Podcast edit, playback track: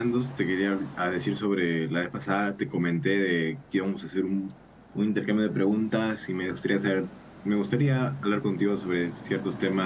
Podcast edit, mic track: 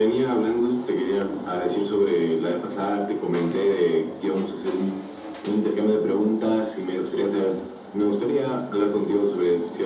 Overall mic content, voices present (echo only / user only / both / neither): echo only